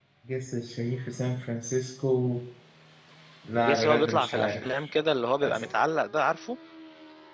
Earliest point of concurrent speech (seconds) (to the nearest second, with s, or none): 4 s